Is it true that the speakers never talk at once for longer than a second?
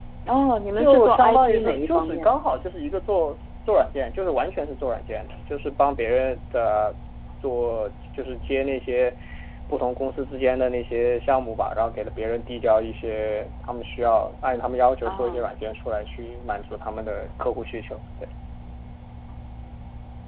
No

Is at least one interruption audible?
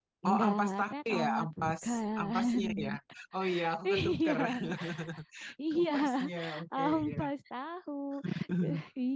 Yes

